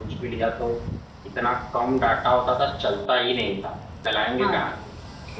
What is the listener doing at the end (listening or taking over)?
listening